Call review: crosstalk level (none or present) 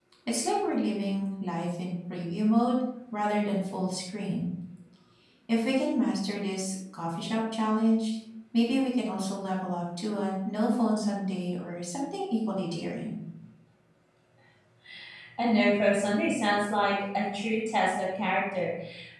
none